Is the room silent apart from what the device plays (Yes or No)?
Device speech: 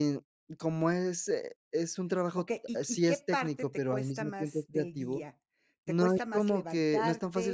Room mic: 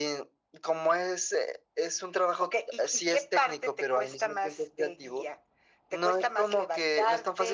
Yes